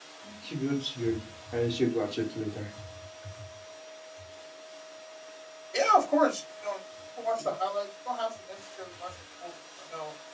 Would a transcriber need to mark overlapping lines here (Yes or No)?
No